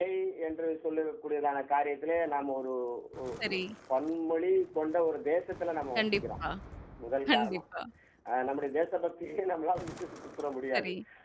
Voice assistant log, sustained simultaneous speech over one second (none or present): none